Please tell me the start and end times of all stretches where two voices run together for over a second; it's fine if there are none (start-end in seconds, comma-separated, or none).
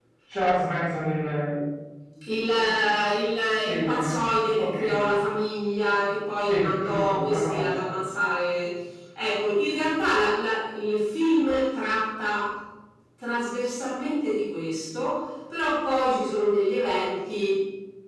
6.5-7.9